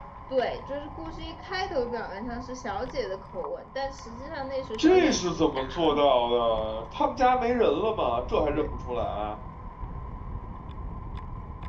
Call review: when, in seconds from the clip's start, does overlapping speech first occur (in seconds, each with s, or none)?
4.8 s